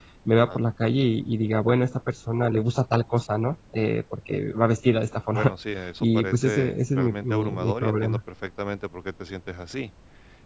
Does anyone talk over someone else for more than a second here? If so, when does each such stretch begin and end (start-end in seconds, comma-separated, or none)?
6.0-8.2